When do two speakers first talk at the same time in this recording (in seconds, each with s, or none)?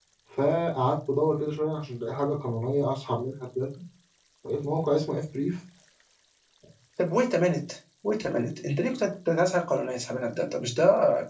none